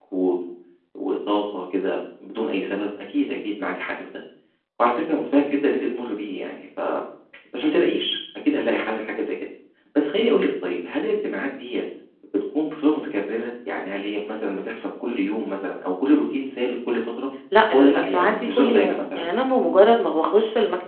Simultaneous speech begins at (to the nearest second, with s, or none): 18 s